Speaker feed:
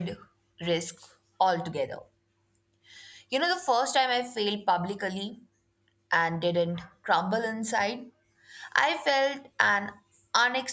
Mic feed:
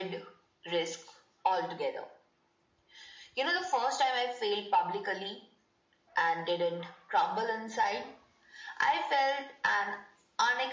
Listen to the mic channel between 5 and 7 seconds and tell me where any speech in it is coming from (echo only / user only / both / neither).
echo only